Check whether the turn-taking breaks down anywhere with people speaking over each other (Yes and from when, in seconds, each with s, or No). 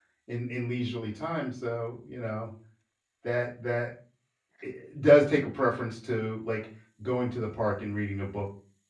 No